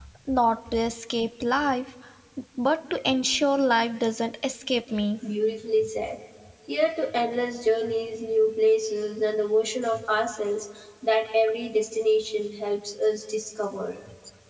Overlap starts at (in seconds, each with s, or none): none